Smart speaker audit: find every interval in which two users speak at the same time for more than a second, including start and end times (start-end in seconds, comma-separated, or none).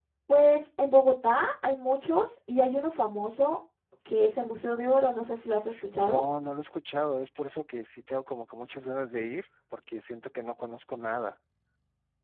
none